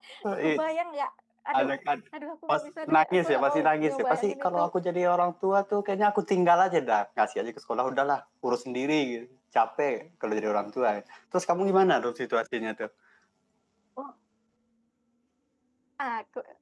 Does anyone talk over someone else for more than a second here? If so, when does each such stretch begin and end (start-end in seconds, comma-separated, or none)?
2.5-4.6